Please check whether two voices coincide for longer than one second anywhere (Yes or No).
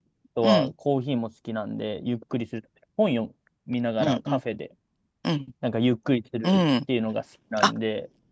No